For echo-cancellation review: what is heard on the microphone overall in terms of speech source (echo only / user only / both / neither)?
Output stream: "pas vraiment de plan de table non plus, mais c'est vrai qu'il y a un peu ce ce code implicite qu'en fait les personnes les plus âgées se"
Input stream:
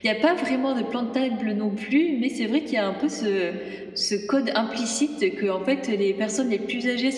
echo only